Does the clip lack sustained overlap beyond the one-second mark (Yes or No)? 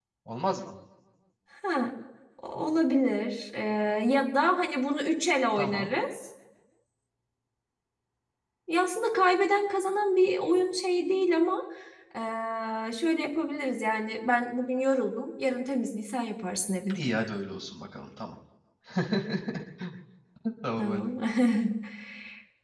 Yes